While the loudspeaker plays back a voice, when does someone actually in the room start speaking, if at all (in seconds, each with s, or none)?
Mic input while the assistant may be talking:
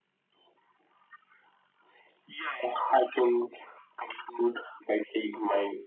none